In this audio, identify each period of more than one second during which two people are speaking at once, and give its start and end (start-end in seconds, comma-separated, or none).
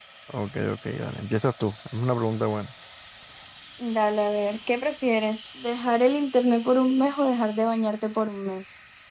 none